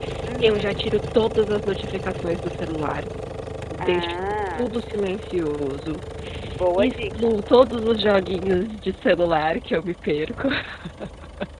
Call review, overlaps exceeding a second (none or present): none